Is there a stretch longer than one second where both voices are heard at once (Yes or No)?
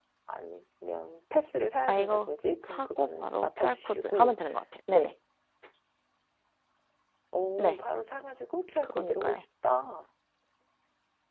Yes